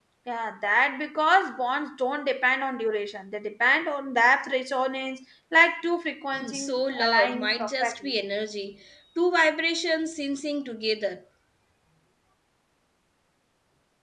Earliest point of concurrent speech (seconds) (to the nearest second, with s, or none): 6 s